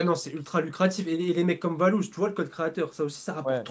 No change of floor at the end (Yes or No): No